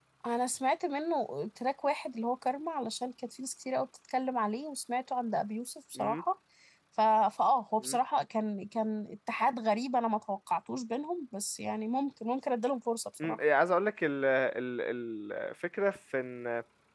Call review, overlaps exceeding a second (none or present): none